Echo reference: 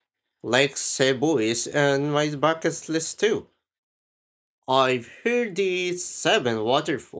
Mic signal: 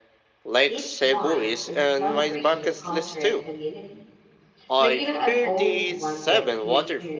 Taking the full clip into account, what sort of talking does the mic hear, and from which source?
both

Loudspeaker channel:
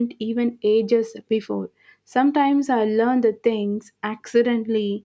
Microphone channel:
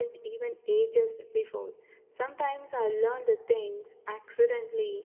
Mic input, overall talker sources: echo only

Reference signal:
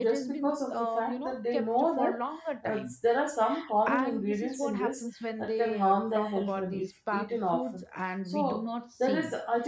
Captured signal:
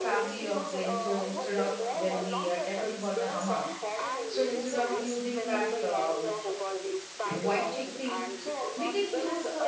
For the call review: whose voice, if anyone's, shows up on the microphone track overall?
both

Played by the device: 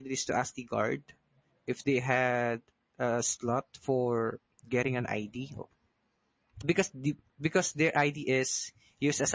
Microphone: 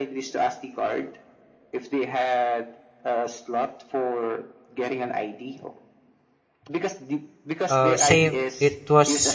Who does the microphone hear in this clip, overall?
both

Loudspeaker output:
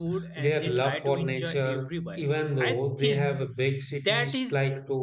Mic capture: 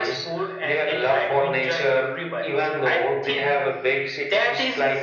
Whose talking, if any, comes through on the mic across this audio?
echo only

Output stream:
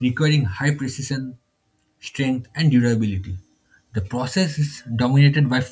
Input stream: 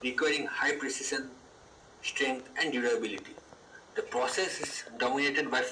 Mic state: echo only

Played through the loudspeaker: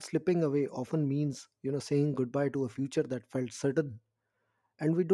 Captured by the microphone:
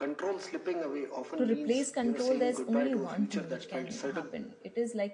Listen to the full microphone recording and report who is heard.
both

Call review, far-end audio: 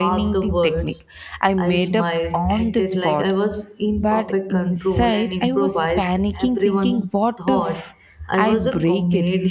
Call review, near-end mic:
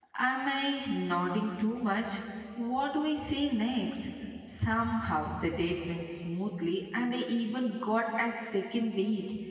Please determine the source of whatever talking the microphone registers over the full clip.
user only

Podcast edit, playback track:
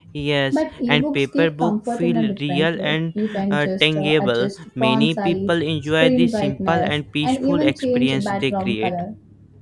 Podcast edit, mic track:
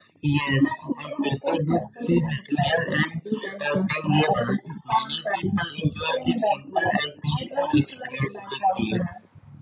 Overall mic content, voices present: echo only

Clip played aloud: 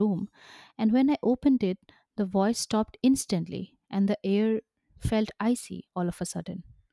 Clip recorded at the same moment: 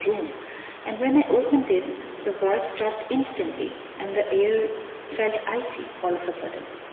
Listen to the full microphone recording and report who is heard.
echo only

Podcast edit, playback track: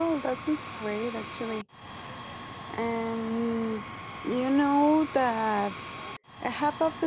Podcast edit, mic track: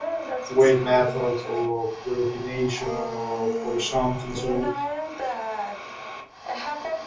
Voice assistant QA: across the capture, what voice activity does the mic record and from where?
both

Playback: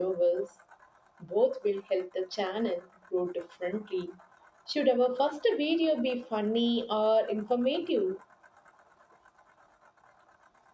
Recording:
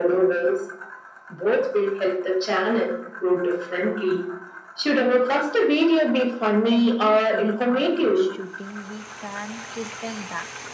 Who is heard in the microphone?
both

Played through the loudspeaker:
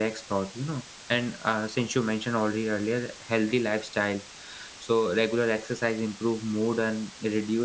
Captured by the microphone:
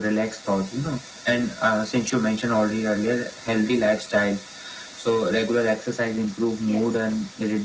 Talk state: both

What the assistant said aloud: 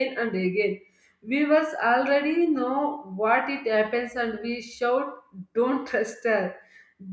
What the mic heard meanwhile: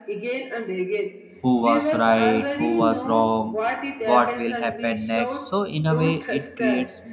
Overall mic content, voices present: both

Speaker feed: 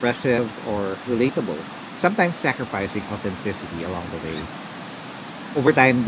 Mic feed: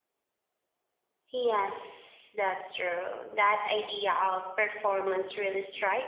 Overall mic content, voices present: user only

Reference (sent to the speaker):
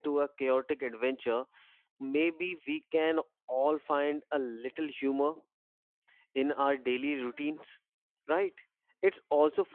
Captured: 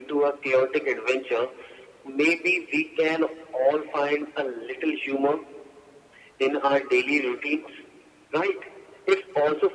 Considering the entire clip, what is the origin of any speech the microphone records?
echo only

